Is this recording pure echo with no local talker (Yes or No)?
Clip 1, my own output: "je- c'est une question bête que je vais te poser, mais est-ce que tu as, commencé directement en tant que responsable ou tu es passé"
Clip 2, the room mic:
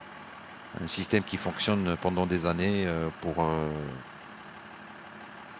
No